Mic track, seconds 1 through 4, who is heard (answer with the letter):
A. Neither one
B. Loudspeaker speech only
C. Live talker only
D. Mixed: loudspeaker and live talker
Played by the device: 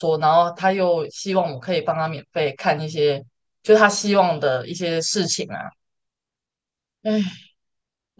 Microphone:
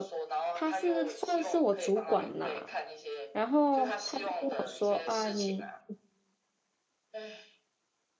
D